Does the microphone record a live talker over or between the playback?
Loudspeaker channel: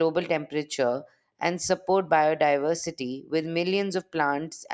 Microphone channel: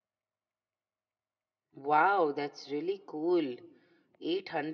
Yes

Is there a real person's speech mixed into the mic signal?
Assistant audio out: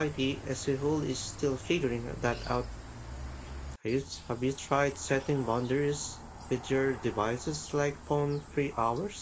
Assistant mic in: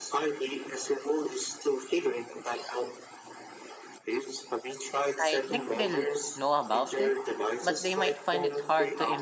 Yes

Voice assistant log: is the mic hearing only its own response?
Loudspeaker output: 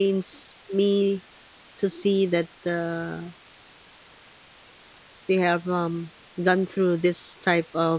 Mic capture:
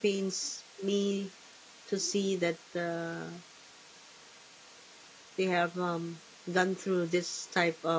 Yes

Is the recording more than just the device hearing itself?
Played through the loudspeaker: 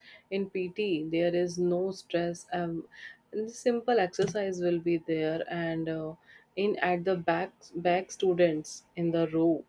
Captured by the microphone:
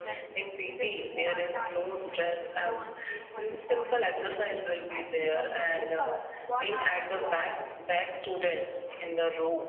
Yes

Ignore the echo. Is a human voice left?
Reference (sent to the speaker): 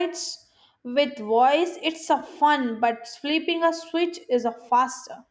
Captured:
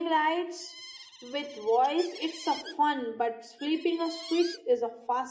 No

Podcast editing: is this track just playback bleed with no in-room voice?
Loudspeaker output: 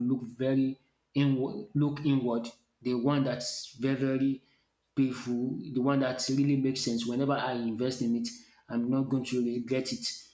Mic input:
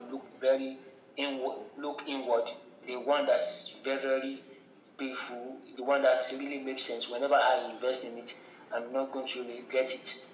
Yes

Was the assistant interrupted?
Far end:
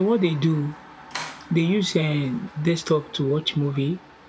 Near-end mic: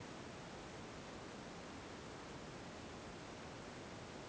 No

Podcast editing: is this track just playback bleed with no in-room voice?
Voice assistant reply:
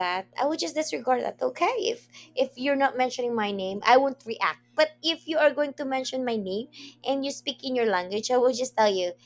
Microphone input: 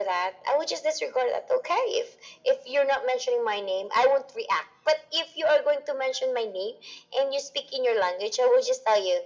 Yes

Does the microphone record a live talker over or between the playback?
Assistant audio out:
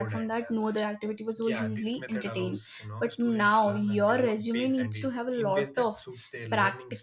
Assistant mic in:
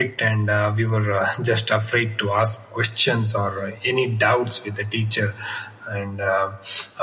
Yes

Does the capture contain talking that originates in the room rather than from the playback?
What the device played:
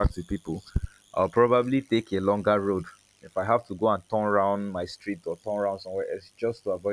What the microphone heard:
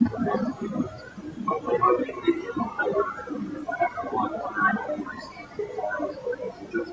No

